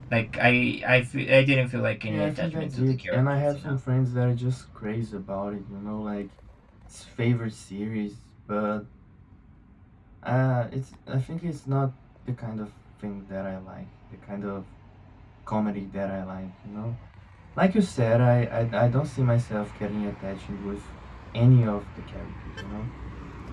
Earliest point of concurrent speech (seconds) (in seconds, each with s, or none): 2.1 s